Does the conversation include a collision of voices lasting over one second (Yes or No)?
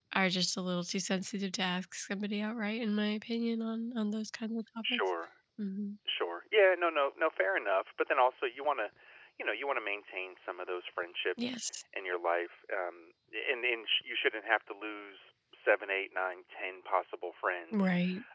No